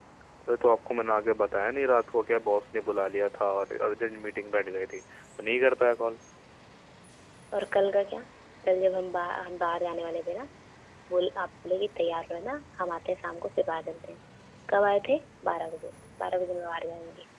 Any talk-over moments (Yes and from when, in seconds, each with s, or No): No